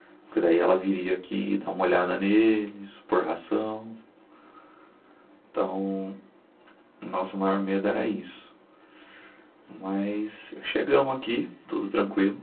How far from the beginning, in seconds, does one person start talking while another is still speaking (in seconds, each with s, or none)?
none